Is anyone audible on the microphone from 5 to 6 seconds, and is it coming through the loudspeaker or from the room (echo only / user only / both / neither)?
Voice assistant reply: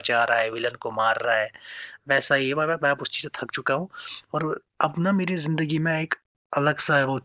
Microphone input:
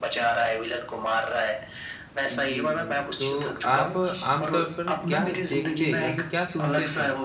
both